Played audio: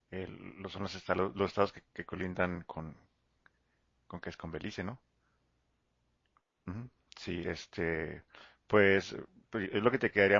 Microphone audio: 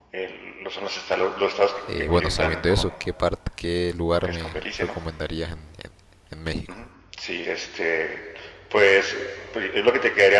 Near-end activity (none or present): present